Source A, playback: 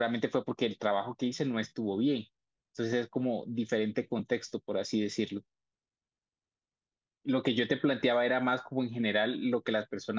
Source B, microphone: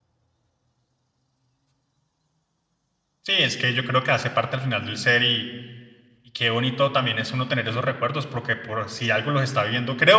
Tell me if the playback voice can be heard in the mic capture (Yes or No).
No